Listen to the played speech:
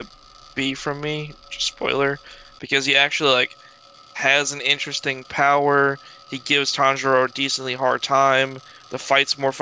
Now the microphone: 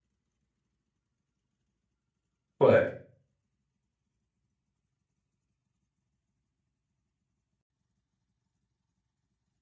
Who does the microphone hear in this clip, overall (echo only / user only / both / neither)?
user only